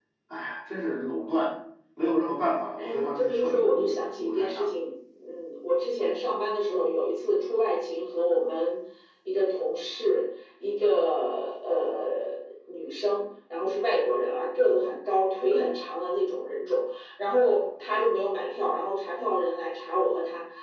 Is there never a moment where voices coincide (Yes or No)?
No